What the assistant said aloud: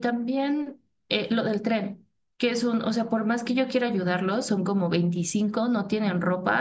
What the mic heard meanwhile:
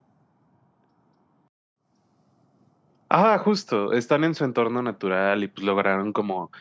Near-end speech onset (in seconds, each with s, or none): 3.1 s